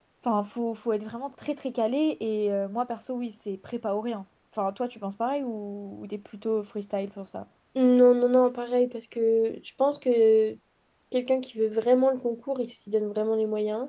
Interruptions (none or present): none